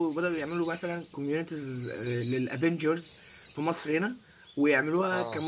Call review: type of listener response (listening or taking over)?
listening